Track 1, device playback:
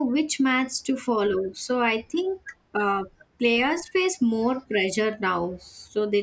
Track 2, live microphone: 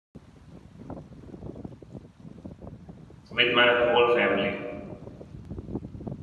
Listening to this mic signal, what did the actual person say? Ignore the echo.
with my whole family.

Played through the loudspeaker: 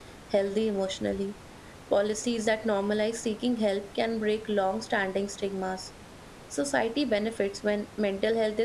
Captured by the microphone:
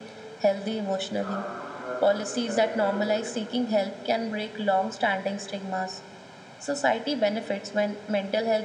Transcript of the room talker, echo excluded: Yeah, you know, you're absolutely right. Uh,

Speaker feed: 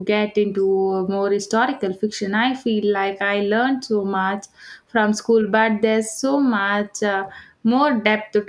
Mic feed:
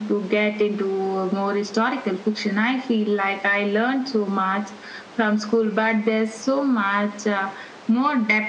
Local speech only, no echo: none

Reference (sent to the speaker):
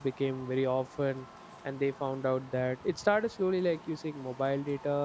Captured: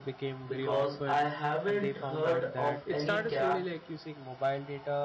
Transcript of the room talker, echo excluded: because I haven't heard of any cap

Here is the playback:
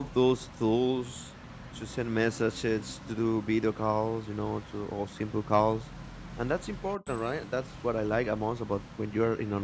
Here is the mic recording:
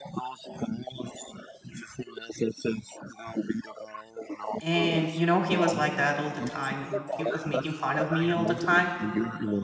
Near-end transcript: and you know he was like that all the time and he was making fun of me all the time

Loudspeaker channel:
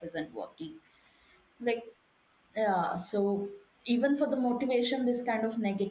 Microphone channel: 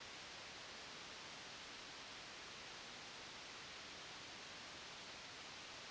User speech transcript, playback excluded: none

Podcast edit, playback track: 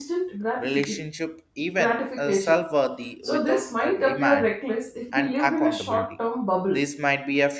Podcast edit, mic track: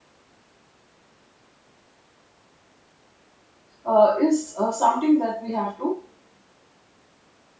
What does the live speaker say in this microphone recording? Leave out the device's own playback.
uh, is uh, something that we have to

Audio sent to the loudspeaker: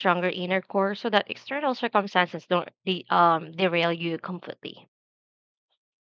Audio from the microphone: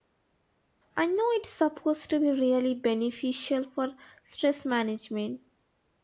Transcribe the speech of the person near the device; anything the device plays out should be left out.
I know it's supposed to be really beneficial for stress management.

